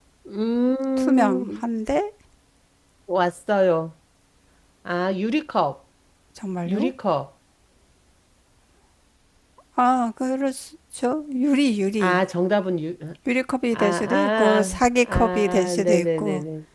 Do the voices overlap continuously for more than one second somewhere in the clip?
Yes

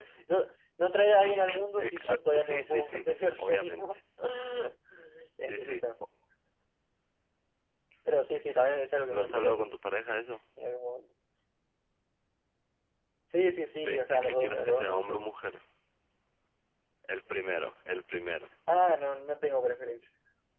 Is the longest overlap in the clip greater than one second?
Yes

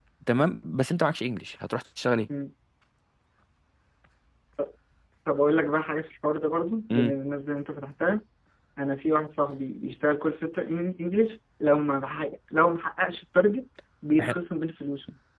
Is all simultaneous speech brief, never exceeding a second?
Yes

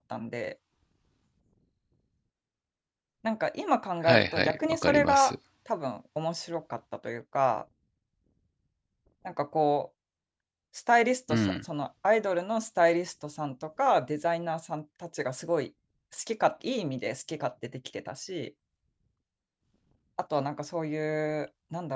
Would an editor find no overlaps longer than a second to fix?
No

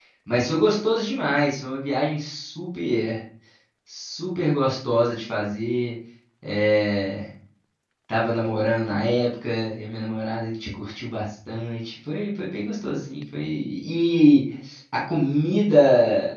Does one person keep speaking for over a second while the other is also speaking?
No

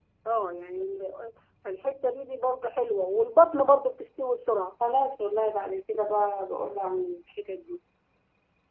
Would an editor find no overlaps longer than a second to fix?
Yes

